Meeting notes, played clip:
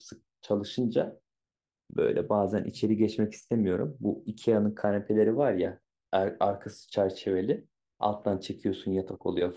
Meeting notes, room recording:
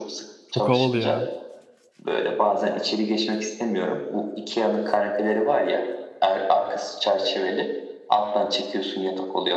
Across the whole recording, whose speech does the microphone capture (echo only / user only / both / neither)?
both